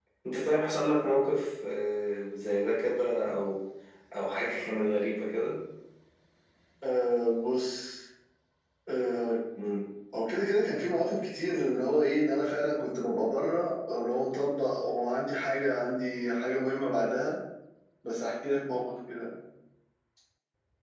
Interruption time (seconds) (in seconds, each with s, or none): none